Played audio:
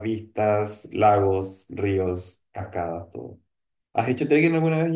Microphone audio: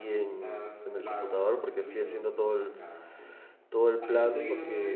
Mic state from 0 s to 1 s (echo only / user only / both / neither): both